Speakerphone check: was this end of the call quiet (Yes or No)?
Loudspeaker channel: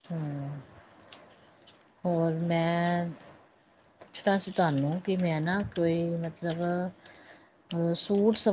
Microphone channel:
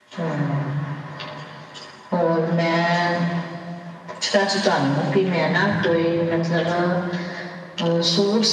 Yes